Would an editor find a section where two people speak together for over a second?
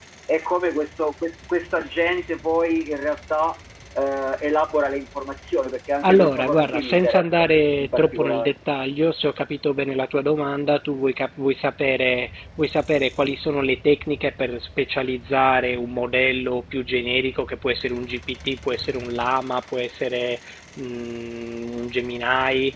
Yes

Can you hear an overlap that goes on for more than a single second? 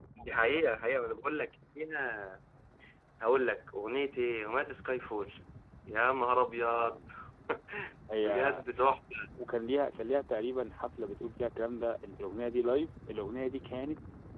No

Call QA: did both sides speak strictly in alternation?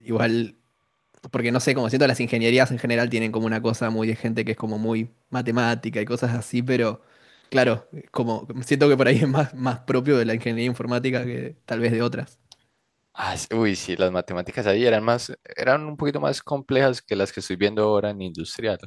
Yes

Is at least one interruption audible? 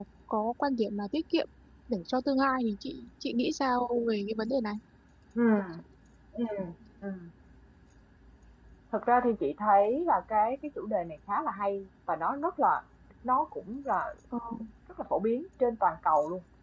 No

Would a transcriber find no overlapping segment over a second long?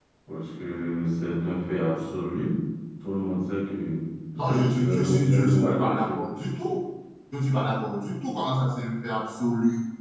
No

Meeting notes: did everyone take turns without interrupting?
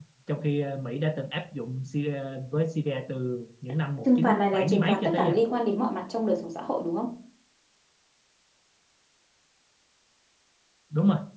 No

